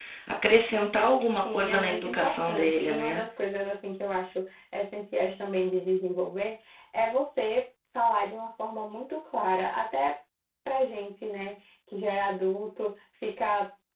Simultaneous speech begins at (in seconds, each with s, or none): 1.4 s